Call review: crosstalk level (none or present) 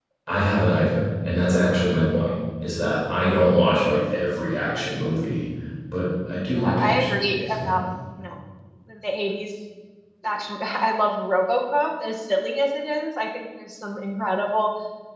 present